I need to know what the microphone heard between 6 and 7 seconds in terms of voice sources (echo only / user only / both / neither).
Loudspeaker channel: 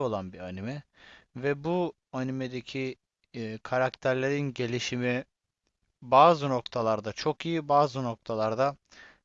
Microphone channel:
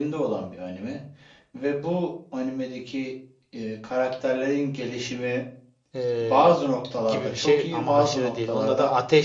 both